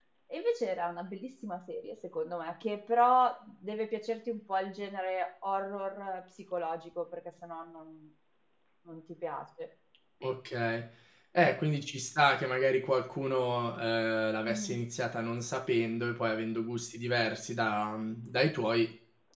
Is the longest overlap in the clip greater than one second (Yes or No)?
No